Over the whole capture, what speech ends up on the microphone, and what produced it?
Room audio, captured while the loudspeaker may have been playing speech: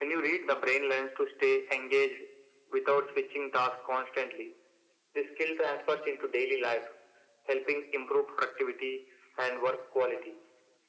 echo only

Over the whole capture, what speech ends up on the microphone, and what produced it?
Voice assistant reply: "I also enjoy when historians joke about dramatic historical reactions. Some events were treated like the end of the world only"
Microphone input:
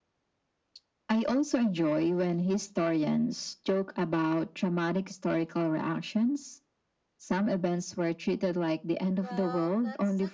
both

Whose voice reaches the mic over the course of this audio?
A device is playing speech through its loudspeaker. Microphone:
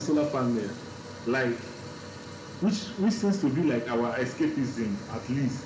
echo only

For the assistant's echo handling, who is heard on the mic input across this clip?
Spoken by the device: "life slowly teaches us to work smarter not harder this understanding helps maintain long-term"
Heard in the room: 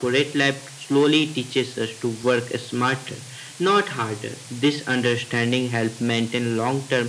echo only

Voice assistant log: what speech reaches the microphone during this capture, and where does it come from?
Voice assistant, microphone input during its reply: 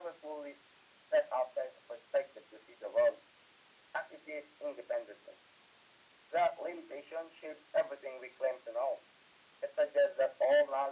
echo only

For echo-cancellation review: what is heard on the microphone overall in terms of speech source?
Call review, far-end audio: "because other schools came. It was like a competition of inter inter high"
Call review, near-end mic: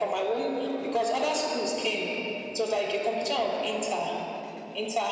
echo only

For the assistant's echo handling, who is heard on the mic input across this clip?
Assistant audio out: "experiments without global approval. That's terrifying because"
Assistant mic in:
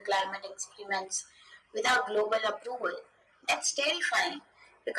echo only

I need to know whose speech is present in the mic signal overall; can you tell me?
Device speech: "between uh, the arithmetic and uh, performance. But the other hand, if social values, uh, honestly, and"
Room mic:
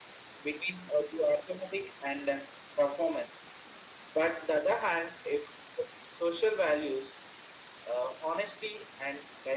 echo only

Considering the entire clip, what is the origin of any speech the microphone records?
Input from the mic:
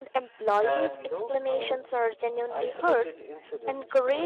both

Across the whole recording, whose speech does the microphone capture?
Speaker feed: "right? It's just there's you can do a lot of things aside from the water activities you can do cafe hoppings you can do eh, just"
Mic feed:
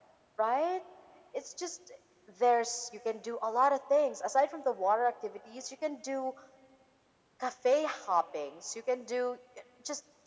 echo only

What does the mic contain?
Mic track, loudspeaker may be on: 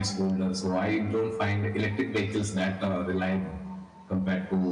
echo only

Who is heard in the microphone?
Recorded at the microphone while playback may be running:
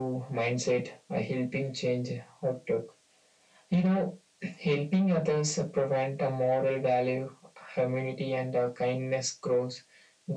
echo only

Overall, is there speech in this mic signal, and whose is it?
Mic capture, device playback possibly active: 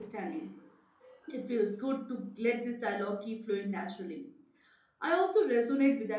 user only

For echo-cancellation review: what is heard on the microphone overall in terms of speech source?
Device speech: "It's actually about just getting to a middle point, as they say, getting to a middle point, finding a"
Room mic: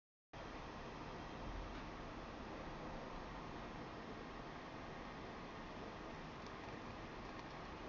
neither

